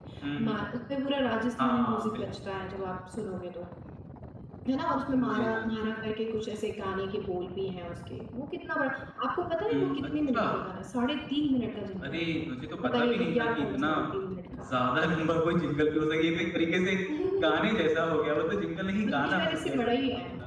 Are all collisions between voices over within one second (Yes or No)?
No